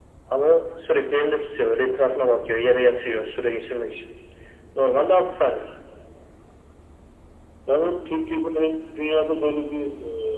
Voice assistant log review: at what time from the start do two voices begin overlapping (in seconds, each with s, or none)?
none